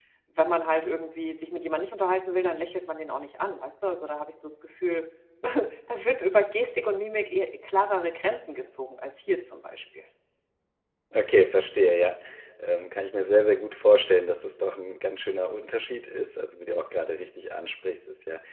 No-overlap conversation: Yes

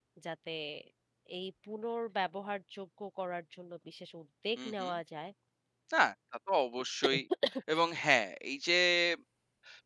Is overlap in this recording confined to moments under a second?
Yes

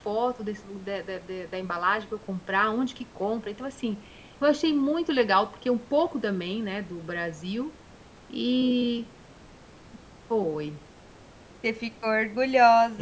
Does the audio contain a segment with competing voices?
No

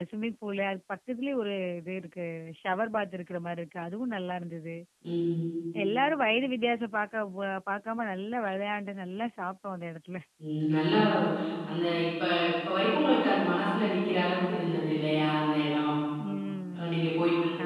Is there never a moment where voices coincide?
Yes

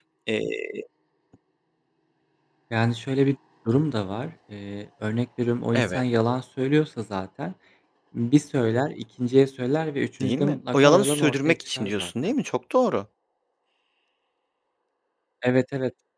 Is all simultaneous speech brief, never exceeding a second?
No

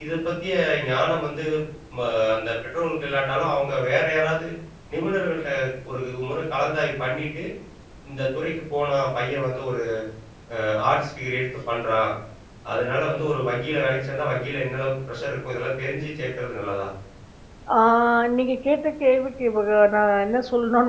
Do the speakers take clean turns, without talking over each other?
Yes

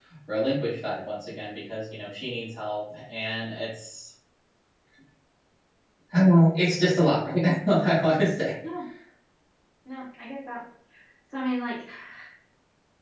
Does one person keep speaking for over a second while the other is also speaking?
No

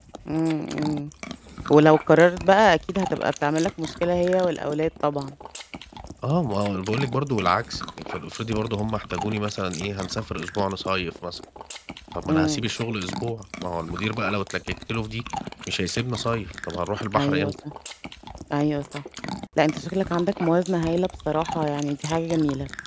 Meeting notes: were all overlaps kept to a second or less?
Yes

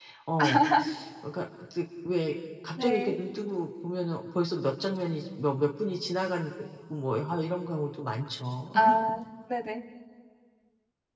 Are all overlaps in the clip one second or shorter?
Yes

